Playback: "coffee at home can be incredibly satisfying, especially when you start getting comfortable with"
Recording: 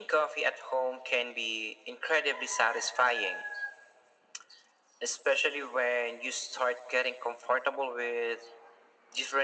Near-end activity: none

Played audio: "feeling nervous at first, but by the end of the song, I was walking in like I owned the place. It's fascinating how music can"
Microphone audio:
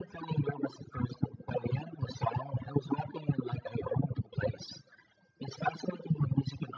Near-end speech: none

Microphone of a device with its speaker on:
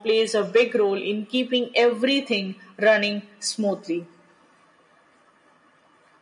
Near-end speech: none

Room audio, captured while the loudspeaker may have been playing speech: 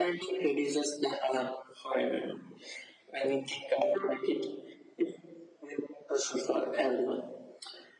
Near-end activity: none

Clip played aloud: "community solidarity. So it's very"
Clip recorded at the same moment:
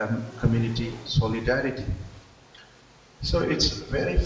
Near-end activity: none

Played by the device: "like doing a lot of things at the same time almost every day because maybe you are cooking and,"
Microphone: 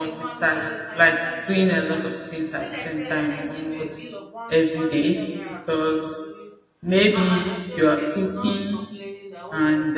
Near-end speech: present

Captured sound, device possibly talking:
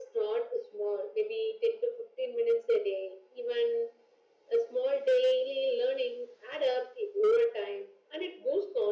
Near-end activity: none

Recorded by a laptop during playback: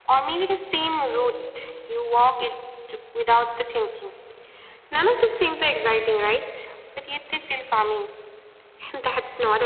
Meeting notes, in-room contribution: none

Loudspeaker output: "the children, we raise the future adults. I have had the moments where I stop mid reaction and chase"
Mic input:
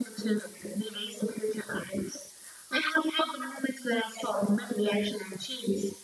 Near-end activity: none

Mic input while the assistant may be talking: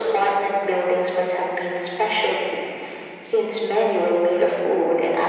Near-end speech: none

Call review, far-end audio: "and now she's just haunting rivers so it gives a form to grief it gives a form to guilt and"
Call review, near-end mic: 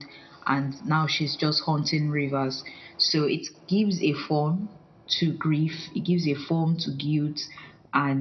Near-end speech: none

